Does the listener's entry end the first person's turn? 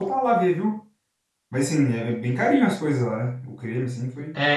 Yes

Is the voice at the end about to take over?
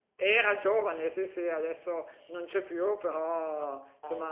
No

